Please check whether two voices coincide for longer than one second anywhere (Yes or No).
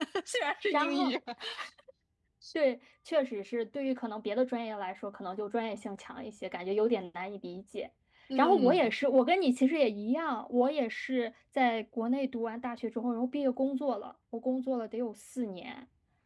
No